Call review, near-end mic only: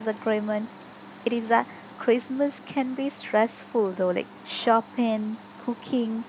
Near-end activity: present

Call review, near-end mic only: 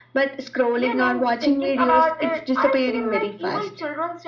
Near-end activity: none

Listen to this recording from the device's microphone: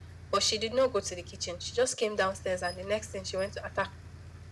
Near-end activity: none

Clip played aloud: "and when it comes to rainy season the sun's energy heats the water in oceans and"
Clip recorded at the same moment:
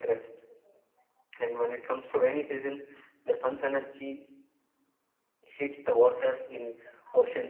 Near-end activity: none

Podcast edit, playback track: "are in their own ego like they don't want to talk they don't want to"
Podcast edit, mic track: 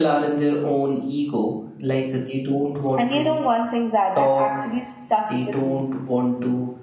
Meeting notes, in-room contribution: present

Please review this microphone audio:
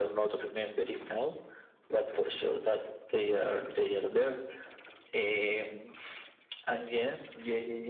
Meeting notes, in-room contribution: none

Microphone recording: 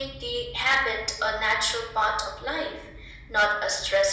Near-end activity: none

